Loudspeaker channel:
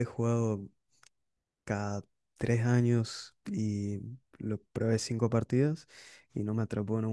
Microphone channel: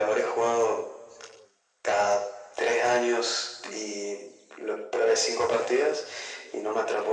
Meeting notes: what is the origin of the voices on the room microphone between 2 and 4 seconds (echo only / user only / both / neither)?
echo only